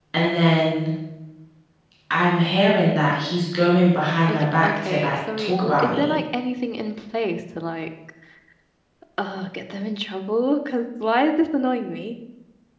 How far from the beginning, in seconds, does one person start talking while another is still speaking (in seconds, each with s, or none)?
4.3 s